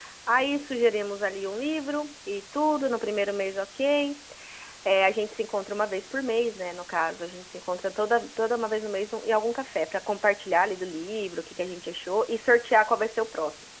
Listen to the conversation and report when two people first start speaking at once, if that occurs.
none

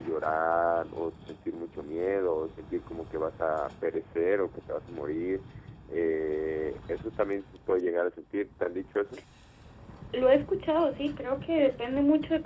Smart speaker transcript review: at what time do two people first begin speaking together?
none

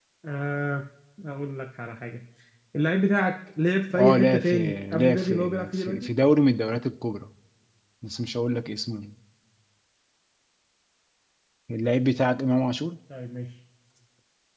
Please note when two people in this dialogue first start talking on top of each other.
3.9 s

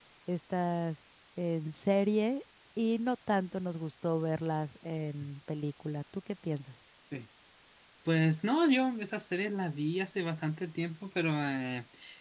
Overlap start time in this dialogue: none

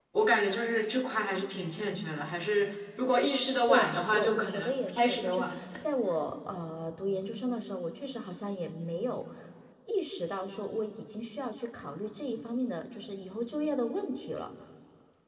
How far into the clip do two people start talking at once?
3.7 s

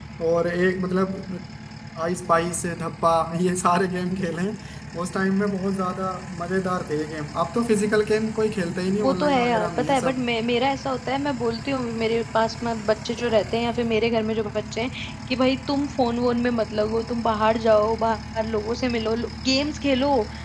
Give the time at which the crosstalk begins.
9.0 s

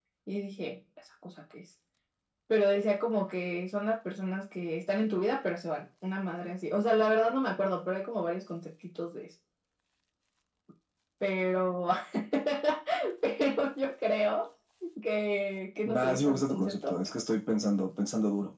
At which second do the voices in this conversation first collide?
15.8 s

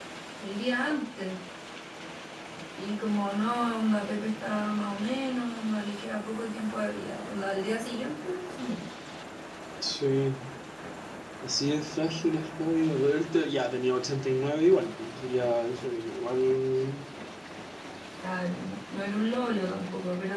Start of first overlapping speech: none

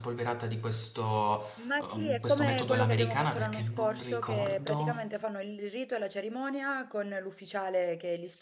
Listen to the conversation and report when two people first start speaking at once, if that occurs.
1.8 s

